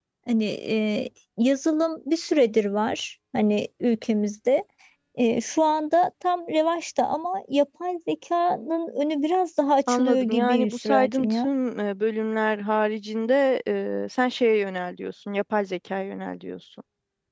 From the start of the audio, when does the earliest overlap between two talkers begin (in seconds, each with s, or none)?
9.9 s